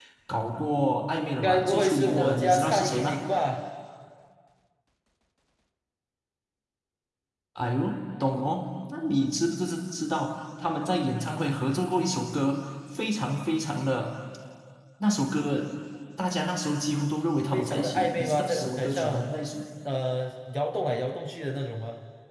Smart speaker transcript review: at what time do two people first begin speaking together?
1.4 s

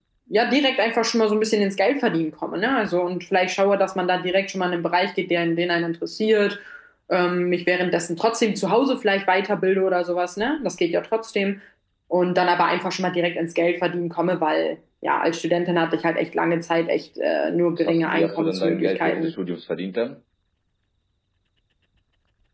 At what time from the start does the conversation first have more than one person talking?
17.7 s

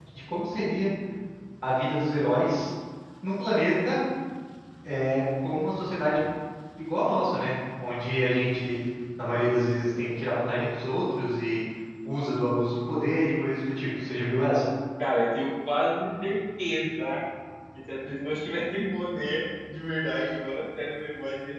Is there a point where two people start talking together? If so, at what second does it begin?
none

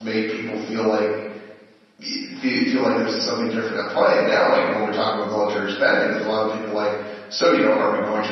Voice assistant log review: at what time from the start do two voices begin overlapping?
none

